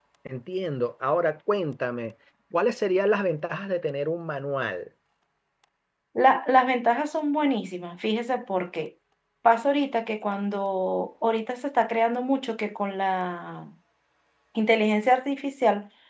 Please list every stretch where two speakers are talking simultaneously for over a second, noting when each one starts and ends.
none

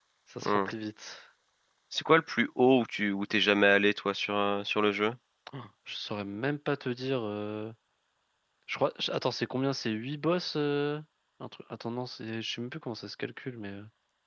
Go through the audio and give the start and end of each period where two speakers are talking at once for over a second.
none

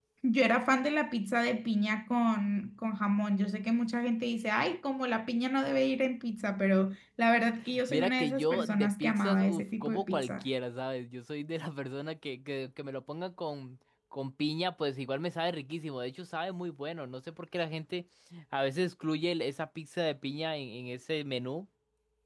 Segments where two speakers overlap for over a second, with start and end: 7.9-10.4

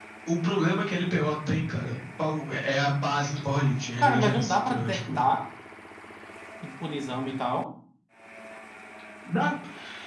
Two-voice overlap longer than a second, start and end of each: 4.0-5.2

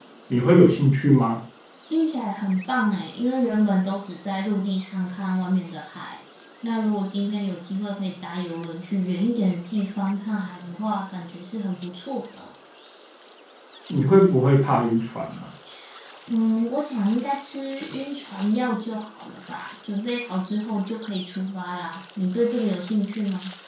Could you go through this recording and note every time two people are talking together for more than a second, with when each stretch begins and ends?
none

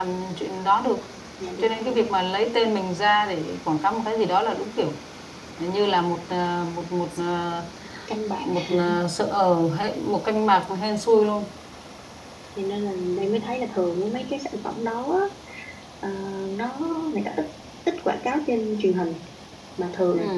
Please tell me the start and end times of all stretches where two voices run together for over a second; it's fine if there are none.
none

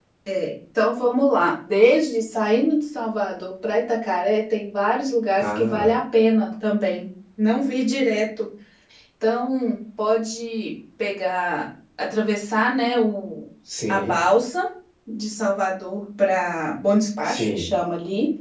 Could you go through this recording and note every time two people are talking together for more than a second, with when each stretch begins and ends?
none

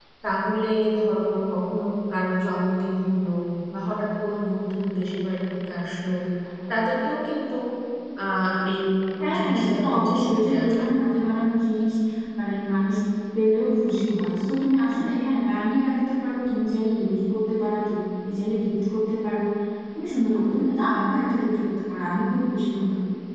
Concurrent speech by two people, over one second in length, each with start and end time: 9.4-10.8

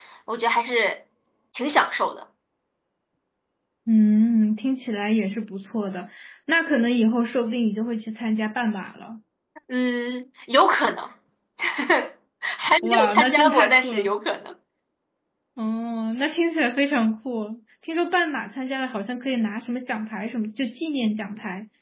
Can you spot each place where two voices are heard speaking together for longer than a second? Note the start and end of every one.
12.8-14.1

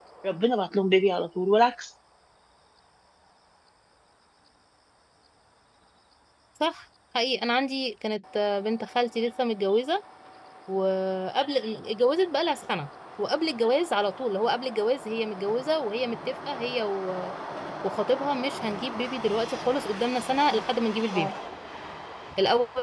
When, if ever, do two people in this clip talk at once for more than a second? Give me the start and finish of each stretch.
none

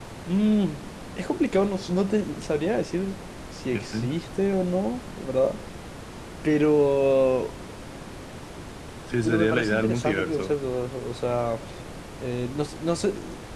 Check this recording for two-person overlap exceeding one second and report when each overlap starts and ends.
9.2-10.5

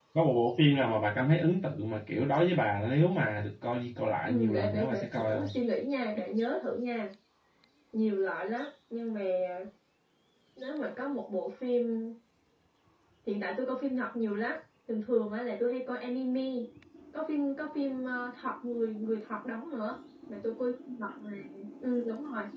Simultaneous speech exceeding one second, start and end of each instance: 4.3-5.5

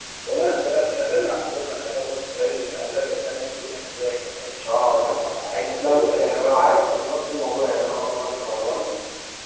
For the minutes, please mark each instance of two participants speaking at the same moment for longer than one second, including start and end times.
4.7-6.6

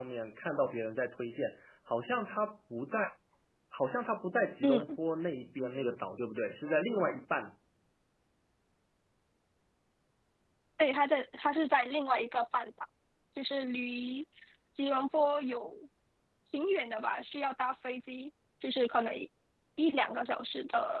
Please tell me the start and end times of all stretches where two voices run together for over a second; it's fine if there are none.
none

